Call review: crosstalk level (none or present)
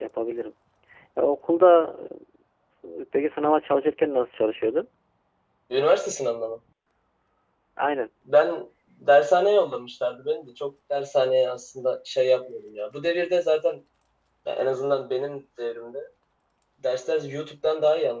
none